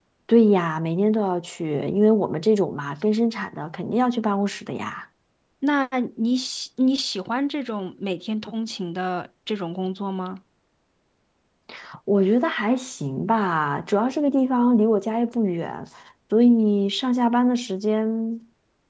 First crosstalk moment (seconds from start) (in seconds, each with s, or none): none